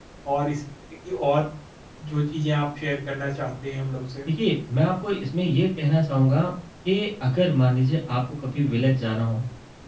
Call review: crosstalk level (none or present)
none